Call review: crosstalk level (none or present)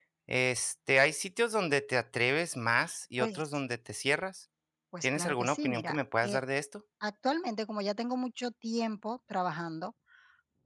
present